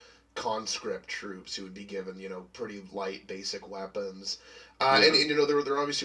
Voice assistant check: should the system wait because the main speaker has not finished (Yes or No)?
Yes